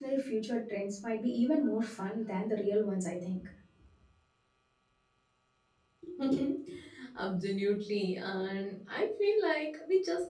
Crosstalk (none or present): none